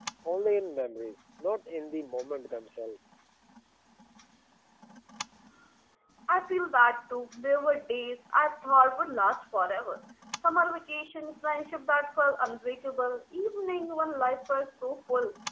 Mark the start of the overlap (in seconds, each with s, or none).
none